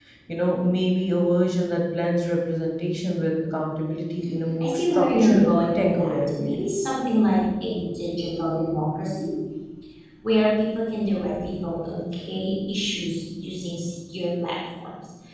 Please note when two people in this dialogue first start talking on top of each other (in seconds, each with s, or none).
4.6 s